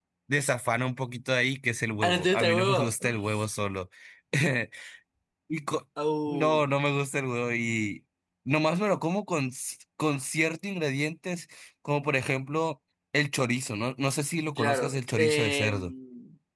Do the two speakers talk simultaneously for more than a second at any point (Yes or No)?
Yes